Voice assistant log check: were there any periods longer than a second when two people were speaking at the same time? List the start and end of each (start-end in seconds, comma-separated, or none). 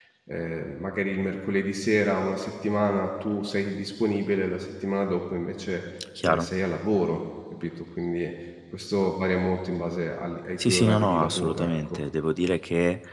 10.6-12.0